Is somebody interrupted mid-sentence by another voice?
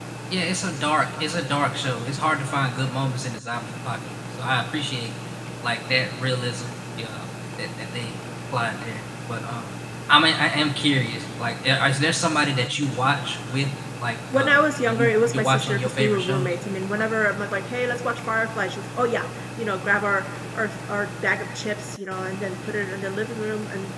Yes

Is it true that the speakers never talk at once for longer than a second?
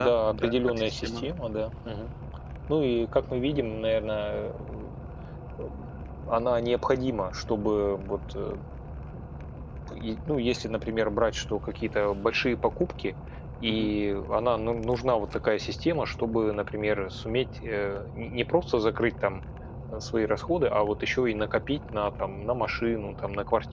No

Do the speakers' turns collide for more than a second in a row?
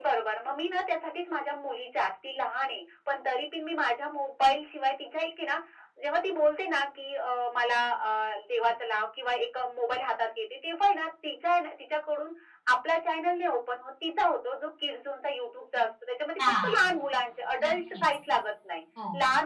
No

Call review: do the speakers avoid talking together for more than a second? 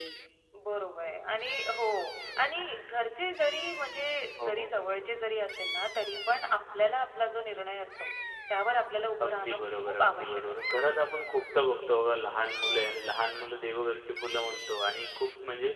No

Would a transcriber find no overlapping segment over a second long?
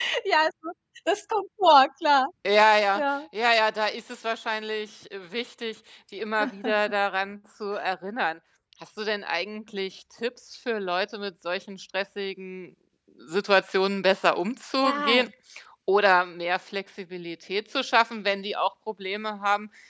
Yes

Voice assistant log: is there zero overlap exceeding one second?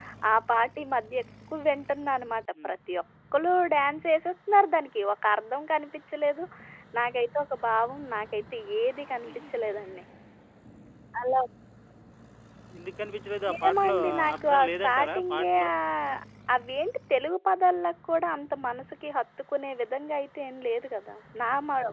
No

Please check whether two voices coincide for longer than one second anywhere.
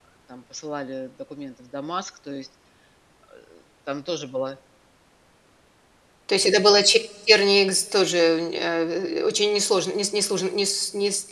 No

